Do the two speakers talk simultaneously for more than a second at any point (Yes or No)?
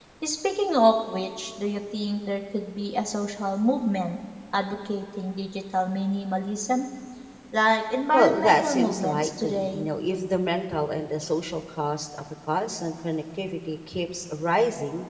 Yes